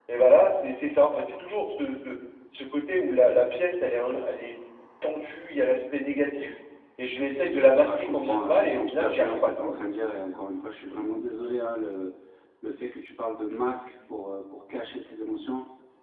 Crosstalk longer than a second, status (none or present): present